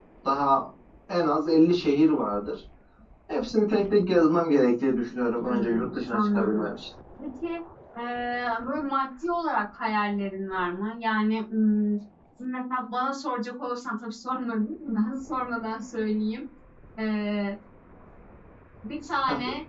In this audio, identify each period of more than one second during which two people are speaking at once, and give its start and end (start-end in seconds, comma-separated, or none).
5.4-6.7